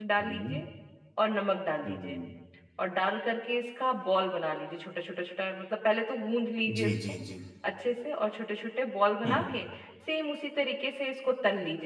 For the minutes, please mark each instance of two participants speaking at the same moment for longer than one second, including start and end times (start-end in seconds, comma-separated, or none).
none